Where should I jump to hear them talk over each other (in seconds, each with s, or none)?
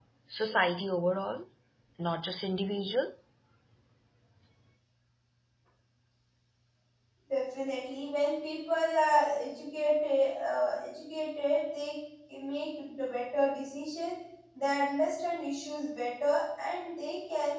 none